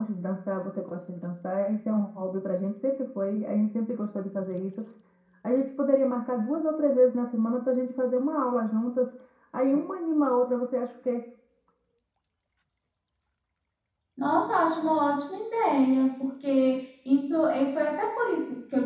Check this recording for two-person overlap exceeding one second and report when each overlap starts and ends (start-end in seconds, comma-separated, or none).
none